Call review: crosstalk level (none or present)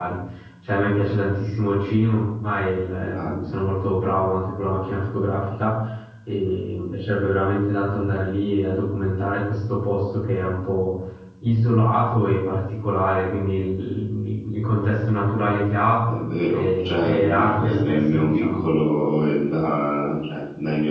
present